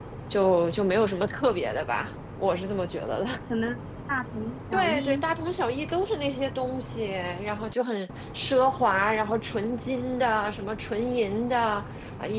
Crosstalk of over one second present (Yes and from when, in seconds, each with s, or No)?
No